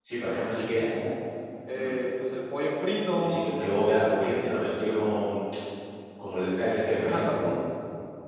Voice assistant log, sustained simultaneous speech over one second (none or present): none